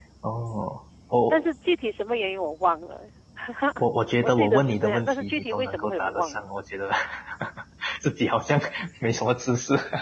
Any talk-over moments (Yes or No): Yes